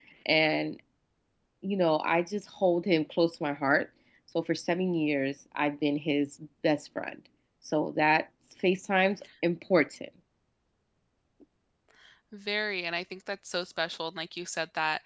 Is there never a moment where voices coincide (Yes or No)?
Yes